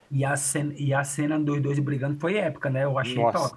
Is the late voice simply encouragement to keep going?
No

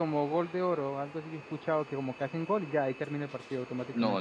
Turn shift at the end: Yes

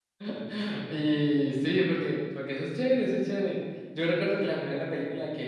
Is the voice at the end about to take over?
No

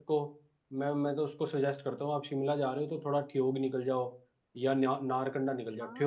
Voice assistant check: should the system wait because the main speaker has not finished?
Yes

